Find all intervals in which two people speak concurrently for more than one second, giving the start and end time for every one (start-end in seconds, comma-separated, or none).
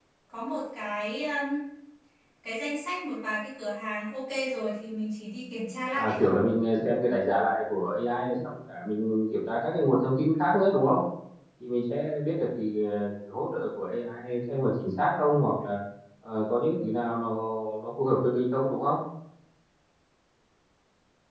none